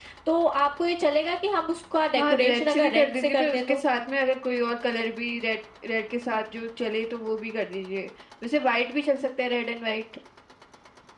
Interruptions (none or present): present